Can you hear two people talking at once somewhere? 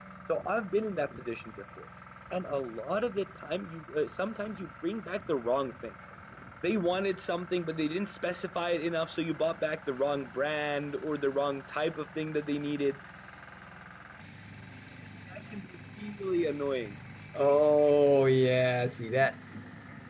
No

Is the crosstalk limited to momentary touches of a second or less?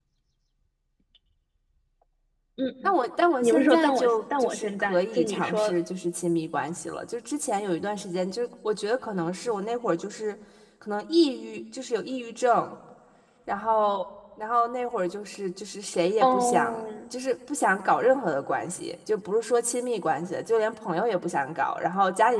No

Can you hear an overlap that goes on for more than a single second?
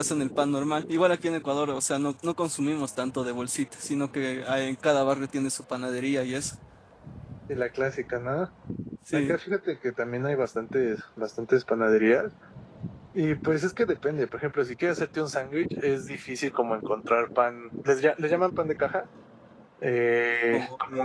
No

